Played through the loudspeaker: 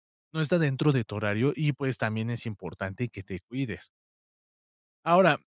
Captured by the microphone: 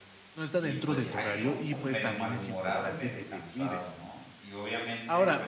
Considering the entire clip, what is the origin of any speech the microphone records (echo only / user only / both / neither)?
both